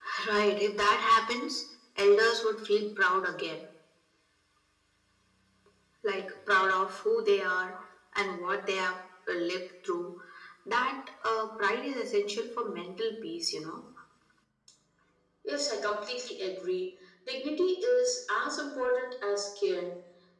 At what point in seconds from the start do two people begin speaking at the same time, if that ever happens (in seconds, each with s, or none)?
none